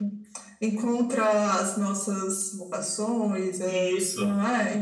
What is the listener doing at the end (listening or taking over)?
taking over